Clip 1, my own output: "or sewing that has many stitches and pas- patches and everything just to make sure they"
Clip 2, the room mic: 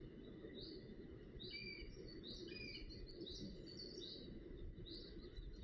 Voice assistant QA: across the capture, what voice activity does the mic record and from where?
neither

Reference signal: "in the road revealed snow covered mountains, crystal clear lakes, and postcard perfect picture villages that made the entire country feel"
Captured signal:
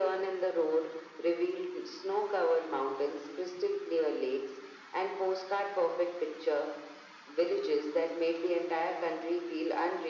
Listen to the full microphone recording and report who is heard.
echo only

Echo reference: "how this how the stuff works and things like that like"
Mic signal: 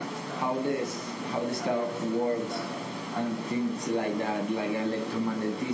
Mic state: both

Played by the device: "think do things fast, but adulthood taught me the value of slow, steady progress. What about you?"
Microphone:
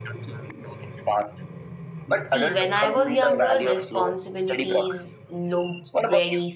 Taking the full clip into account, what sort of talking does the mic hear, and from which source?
both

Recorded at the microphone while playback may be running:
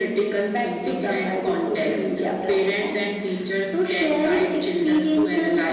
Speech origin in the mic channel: echo only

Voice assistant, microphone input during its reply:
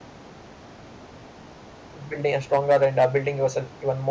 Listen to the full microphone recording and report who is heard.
user only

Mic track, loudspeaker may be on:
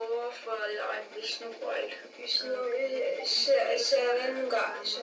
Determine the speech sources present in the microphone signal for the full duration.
both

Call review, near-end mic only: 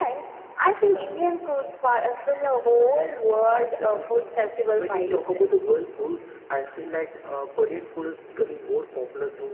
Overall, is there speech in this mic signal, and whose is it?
echo only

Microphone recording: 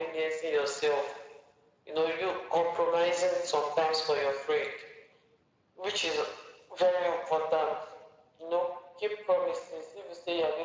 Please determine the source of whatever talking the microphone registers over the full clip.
echo only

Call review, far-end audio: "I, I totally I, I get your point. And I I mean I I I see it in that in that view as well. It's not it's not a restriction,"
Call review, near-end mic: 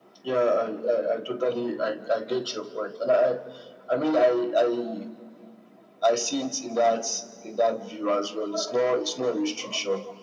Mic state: echo only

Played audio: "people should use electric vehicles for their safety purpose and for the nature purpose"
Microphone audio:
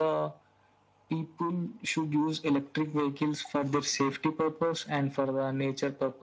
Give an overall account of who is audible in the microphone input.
echo only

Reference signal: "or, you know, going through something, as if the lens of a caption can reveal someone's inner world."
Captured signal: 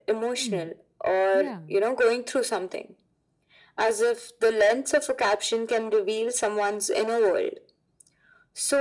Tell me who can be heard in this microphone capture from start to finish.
both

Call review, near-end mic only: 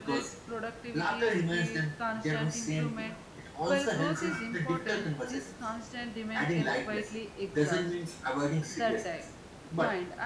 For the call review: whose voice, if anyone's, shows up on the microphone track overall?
both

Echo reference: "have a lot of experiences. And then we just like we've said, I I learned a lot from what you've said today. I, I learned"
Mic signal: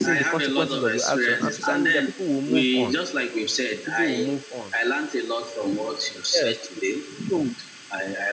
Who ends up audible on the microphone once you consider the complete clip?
both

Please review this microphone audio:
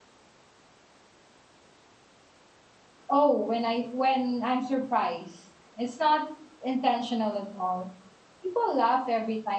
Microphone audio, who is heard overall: user only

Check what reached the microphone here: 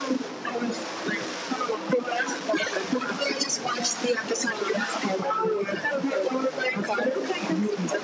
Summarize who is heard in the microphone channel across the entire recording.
echo only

